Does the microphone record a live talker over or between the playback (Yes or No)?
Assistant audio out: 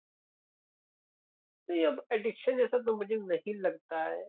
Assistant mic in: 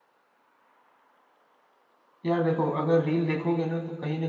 Yes